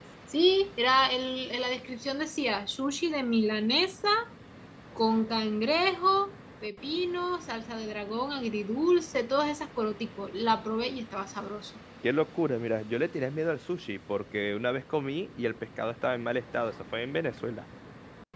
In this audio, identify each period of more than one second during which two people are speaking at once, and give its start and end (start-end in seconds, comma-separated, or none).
none